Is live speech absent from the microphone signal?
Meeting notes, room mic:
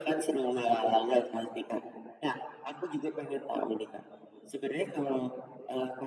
Yes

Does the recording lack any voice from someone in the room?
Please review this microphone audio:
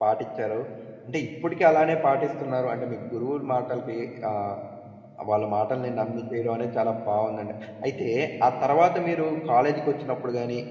No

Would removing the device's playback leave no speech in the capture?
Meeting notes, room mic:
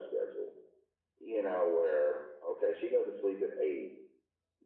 Yes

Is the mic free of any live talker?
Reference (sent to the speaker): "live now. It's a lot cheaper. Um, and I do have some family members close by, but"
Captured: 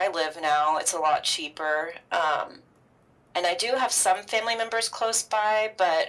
Yes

